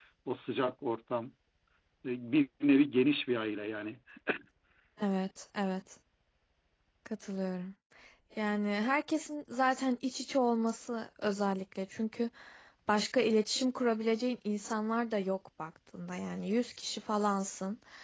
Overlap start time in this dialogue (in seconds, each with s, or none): none